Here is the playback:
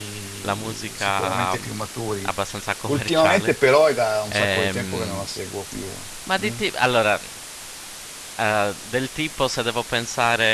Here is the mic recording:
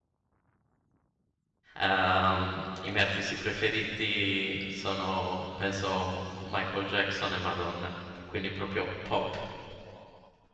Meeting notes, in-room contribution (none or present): present